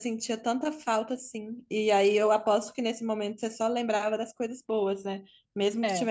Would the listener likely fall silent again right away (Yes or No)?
Yes